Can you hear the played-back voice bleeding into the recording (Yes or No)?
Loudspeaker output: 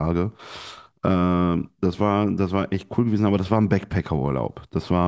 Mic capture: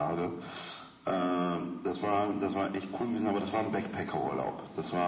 Yes